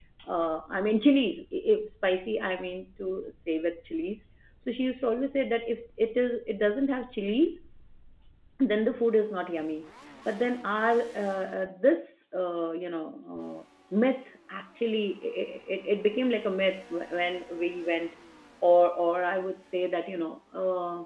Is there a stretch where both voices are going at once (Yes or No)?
No